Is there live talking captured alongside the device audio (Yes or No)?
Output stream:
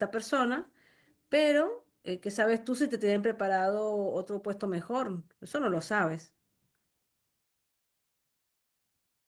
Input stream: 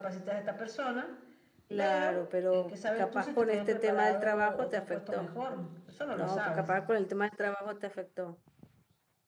Yes